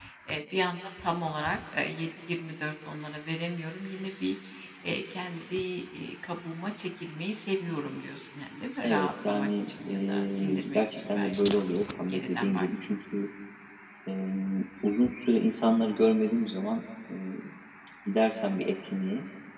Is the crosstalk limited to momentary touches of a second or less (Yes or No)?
No